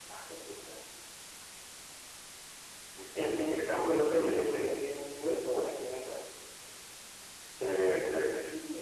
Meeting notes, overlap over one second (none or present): present